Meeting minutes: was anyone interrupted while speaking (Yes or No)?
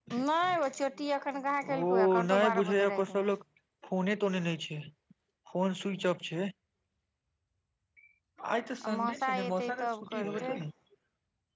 Yes